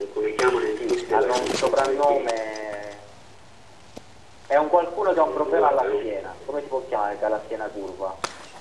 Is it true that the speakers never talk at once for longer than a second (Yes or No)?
No